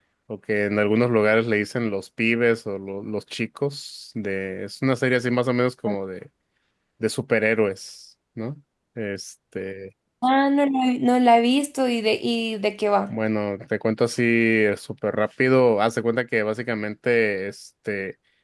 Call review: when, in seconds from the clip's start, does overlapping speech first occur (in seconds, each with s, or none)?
none